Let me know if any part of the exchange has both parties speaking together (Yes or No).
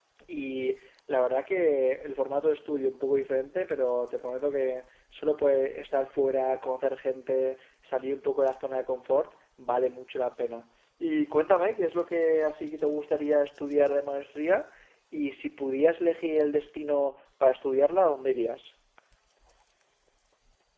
No